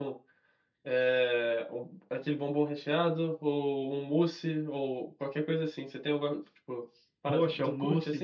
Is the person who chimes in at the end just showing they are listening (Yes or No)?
No